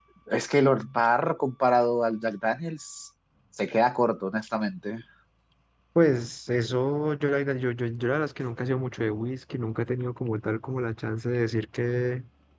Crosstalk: none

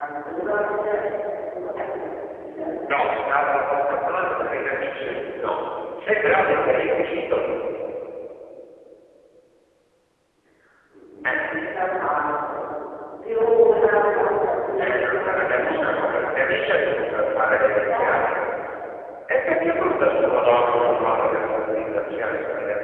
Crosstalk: present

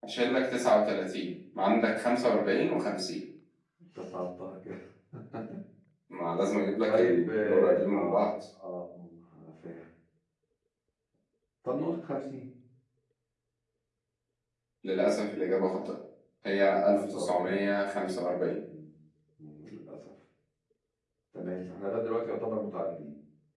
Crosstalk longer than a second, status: present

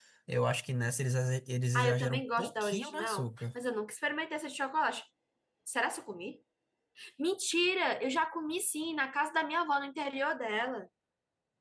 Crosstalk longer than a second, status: present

